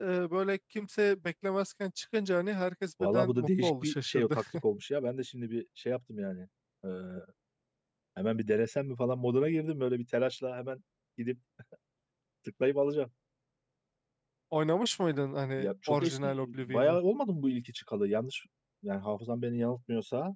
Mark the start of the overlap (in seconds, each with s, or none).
3.0 s